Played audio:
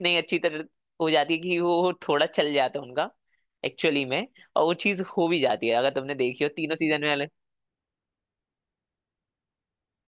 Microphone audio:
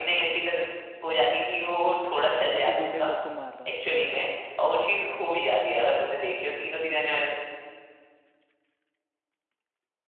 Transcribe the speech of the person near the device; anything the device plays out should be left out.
और फिर गुंडे लोग को मार रहा

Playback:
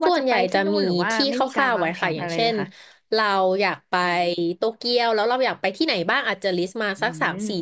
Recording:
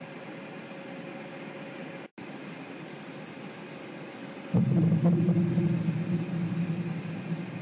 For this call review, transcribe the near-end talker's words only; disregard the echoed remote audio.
อืม

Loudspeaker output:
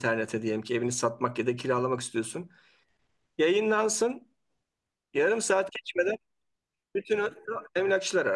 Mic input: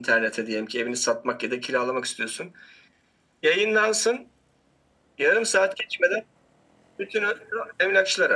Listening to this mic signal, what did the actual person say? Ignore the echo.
none

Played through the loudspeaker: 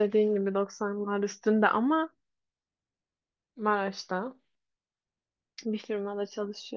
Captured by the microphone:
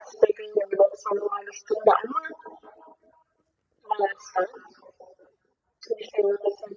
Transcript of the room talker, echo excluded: none

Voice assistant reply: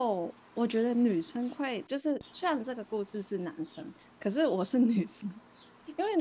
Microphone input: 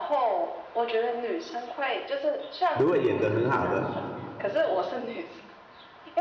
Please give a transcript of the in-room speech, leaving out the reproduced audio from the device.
如果演得很好的，

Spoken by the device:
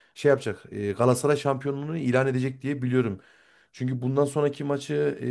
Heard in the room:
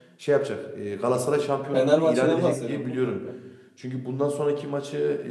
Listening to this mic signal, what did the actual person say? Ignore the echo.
Fenerbahçe'den bahsediyorsun değil mi kanka?

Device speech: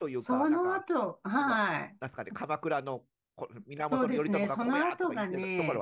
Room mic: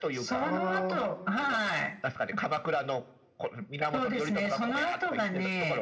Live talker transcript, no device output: ああ、

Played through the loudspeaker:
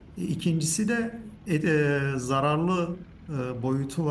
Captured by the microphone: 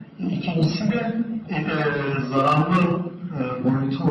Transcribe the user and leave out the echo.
none

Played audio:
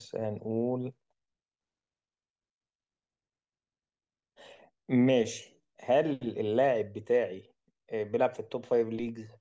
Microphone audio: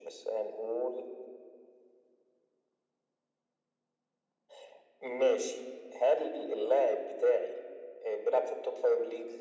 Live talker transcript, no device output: none

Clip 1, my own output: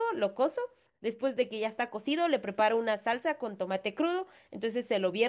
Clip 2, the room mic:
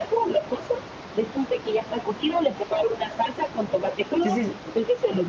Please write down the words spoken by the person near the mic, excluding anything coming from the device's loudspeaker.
Entonces,

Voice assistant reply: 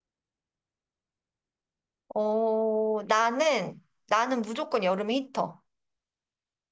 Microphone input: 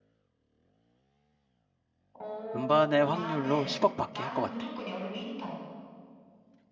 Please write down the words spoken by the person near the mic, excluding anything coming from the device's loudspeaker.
음반의 확률로 10억 받기 할 것 같아.

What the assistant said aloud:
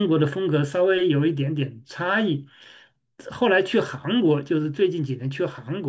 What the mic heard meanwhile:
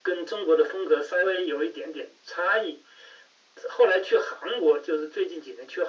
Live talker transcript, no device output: none

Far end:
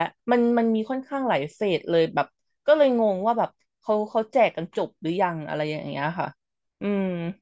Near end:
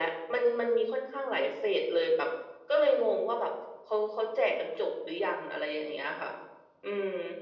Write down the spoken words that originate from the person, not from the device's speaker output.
none

